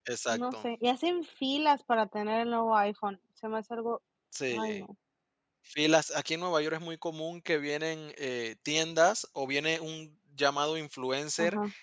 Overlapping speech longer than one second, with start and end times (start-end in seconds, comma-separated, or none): none